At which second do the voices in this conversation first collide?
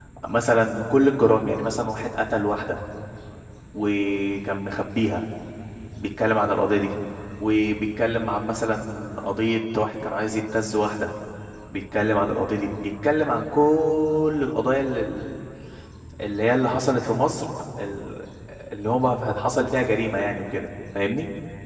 none

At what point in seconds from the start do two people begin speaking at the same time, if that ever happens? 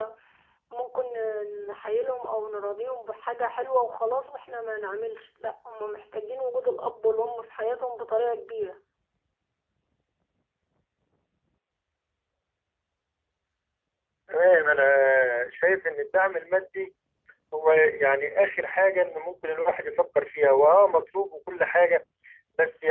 none

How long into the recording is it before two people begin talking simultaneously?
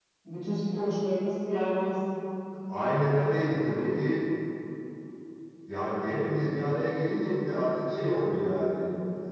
none

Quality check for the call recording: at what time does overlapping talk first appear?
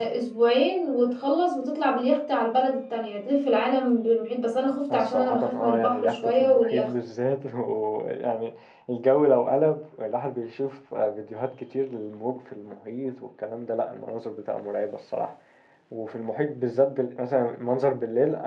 5 s

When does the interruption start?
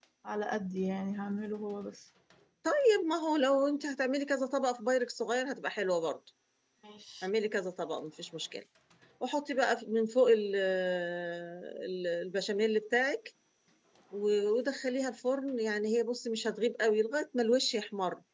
none

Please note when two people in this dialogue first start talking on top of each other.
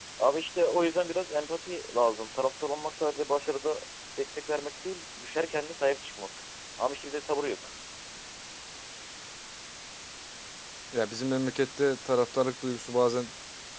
none

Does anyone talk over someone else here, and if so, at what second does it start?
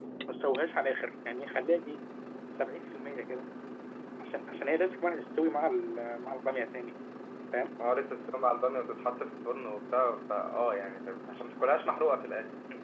none

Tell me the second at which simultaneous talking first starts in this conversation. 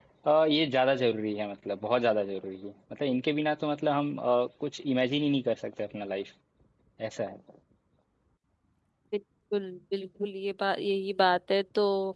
none

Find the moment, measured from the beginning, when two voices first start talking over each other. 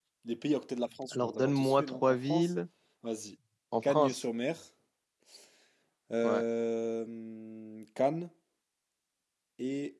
1 s

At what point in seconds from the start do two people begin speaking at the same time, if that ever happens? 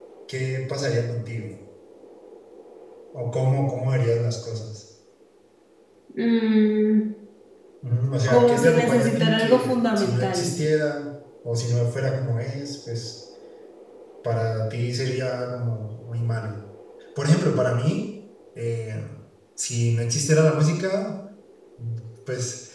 8 s

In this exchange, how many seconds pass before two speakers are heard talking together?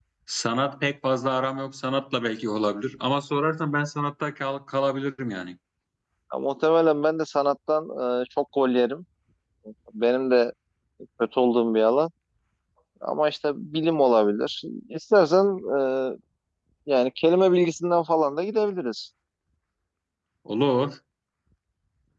none

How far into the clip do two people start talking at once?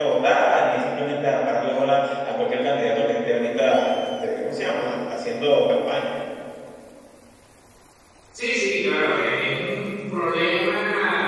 none

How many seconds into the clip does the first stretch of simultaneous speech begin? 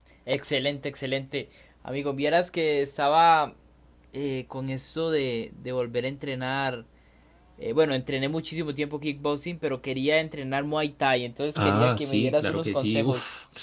12 s

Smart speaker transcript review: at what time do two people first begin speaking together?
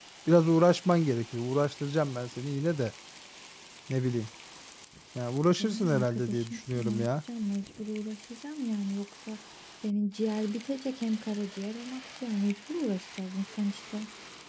6 s

